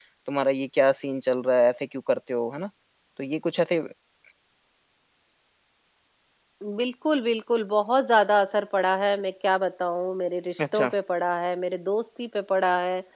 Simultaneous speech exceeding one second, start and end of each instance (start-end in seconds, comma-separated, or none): none